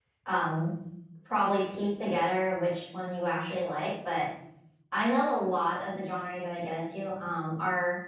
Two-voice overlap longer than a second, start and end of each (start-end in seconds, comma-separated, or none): none